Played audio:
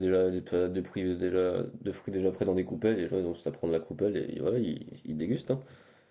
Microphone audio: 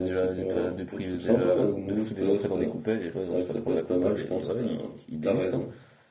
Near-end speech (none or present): present